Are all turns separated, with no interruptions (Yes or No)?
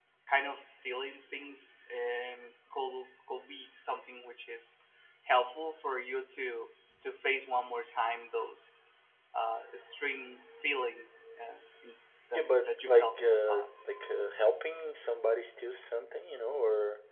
No